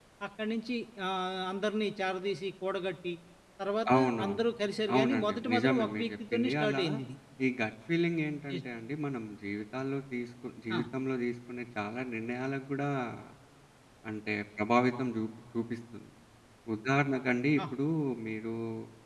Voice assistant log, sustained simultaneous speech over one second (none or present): present